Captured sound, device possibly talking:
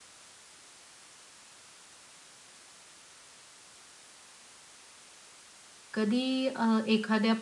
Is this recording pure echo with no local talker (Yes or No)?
No